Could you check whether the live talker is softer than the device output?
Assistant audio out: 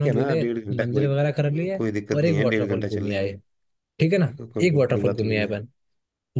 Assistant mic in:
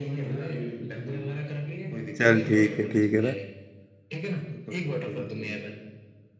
No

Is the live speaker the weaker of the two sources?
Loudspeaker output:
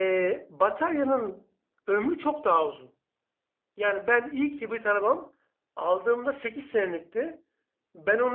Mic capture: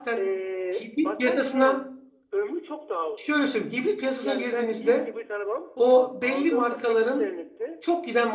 No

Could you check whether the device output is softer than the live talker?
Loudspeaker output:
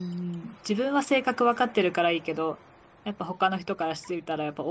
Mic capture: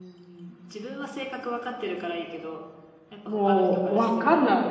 Yes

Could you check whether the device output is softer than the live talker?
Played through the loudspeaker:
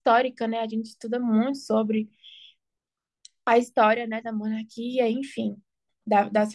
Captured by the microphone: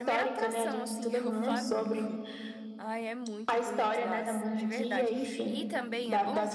No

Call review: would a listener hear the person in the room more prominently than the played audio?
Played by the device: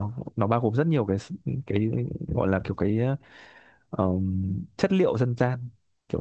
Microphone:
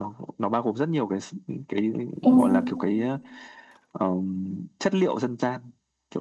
Yes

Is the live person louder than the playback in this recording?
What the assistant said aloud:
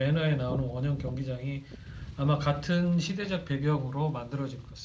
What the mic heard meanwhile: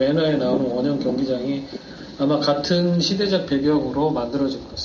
No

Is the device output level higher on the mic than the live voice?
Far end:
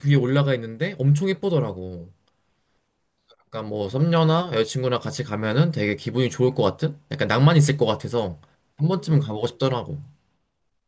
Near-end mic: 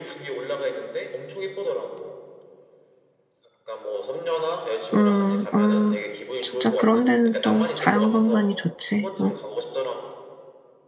No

